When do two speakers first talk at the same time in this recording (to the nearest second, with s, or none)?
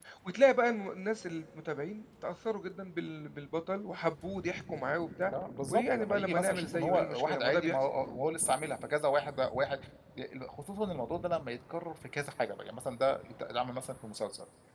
6 s